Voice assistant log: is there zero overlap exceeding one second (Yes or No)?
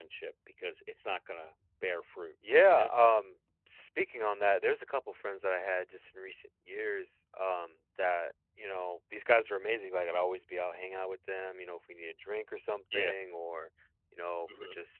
Yes